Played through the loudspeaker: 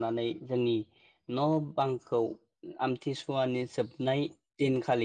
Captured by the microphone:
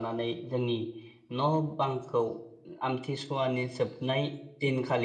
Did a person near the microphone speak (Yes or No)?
No